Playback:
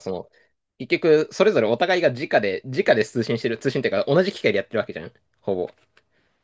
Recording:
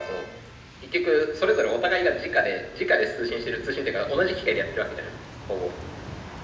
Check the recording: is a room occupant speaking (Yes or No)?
No